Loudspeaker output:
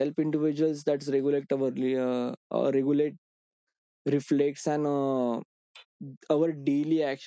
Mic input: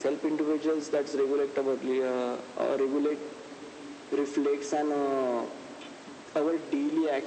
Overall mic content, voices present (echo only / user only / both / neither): echo only